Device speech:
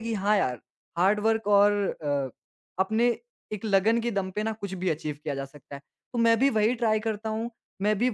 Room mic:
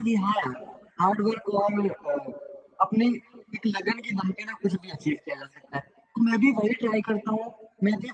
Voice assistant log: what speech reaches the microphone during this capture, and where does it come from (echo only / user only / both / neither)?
echo only